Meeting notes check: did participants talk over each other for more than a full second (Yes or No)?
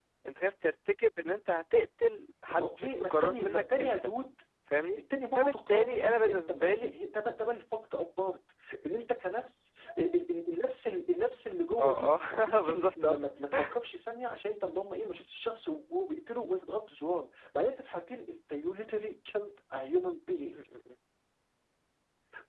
Yes